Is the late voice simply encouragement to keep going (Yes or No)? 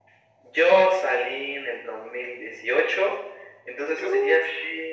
Yes